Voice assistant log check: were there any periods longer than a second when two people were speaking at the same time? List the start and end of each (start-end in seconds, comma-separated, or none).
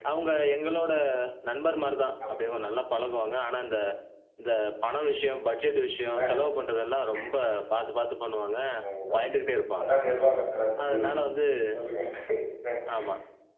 none